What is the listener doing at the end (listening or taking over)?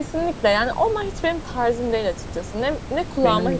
listening